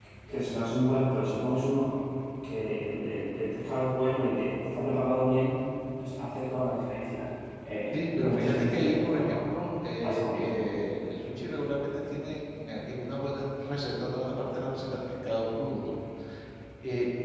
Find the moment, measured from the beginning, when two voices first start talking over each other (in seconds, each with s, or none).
7.9 s